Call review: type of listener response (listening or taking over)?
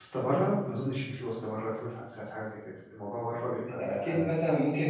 taking over